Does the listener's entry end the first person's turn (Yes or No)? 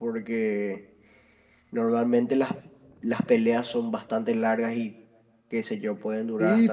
Yes